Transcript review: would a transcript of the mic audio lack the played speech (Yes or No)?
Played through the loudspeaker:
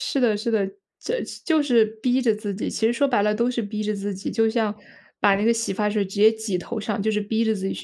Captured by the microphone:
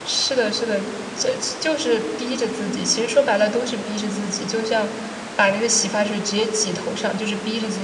No